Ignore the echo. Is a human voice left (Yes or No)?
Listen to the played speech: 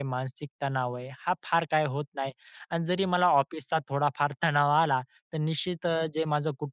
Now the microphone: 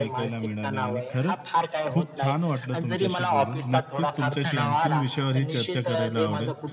Yes